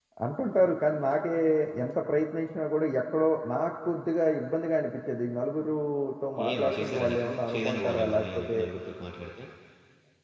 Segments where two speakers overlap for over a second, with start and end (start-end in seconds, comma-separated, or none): 6.5-8.6